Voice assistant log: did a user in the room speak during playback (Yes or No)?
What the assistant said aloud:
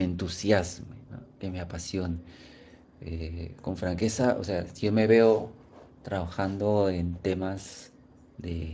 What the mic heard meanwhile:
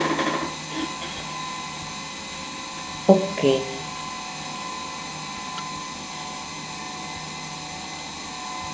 Yes